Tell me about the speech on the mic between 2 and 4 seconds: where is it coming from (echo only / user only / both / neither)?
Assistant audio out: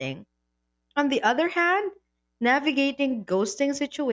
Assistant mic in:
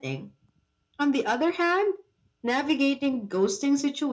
echo only